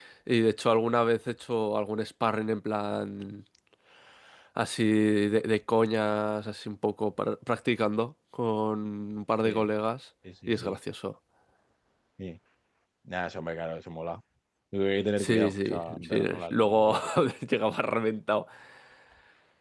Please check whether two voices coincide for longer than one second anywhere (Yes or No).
Yes